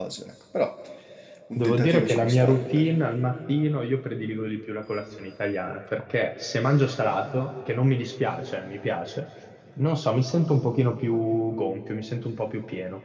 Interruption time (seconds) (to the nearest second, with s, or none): 2 s